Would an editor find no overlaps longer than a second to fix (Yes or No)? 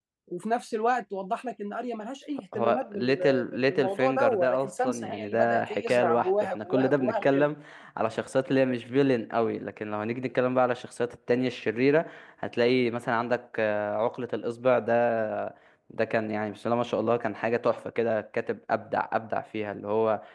No